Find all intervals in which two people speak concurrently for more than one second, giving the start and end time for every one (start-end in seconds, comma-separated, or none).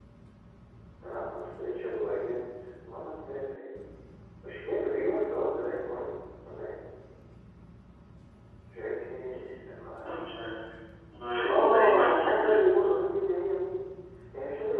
11.5-13.0